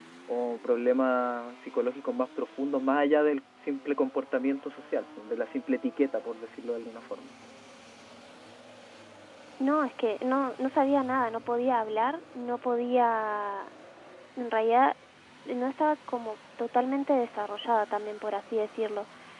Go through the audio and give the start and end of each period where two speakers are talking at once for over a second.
none

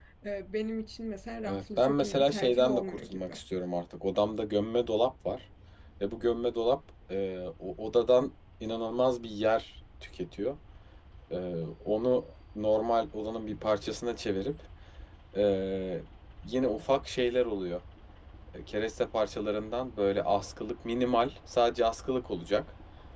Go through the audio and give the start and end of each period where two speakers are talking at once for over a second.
1.4-3.4

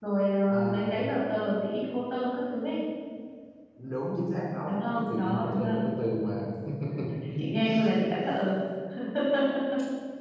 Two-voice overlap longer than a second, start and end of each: 4.7-5.9

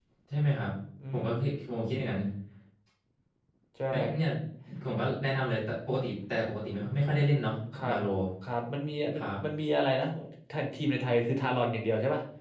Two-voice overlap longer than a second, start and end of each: none

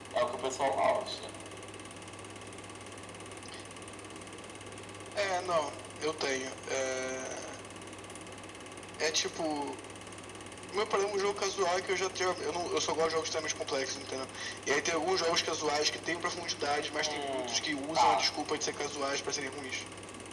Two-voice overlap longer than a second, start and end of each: 17.0-18.2

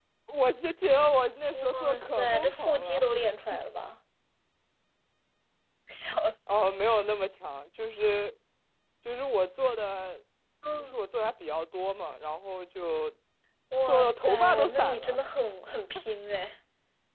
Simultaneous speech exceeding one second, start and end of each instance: 1.5-3.0, 13.9-15.2

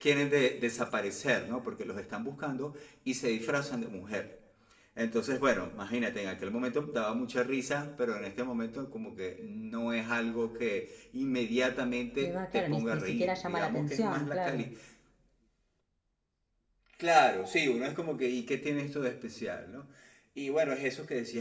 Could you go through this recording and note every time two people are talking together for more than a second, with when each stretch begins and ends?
12.2-14.7

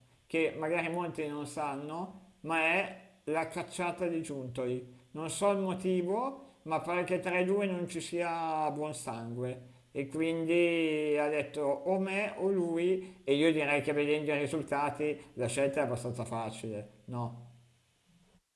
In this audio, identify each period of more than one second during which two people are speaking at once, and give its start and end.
none

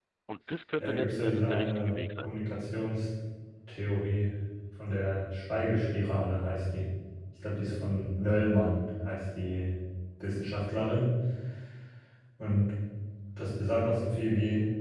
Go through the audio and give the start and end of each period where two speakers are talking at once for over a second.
0.8-2.3

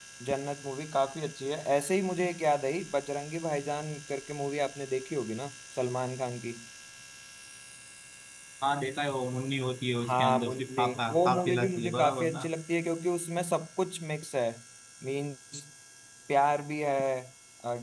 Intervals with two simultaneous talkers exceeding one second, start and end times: 10.0-12.5

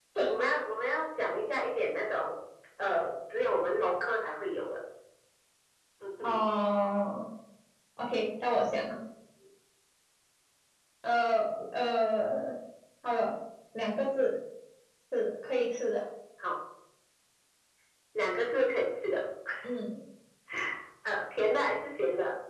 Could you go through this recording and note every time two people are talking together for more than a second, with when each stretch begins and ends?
none

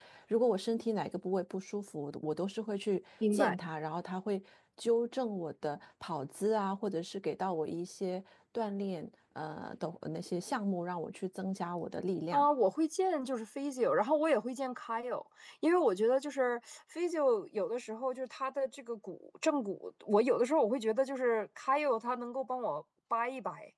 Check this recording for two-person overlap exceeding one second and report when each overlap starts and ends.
none

